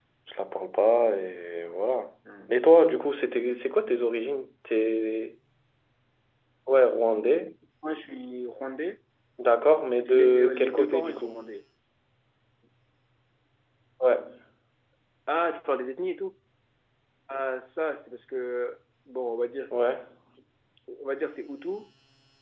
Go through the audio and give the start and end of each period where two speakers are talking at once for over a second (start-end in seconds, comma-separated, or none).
10.1-11.4